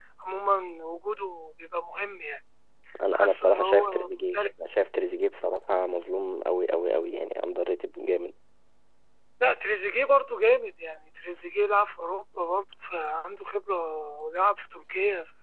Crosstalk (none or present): present